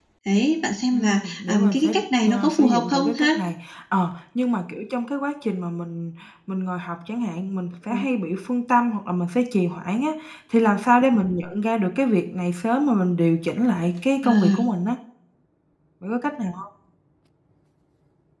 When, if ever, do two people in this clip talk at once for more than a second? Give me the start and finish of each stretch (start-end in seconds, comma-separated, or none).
0.9-3.3